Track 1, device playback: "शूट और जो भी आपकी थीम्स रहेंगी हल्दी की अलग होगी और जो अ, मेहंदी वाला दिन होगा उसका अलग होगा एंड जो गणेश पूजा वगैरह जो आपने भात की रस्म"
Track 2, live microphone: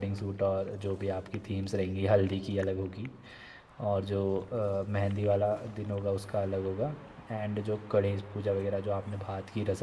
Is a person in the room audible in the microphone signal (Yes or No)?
No